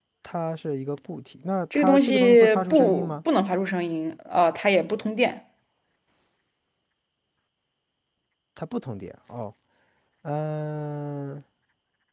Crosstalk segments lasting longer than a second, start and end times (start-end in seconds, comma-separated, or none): 1.7-3.1